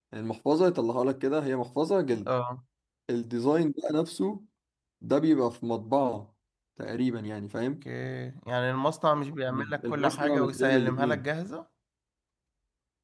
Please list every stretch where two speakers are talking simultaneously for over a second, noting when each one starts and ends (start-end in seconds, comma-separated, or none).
9.5-11.3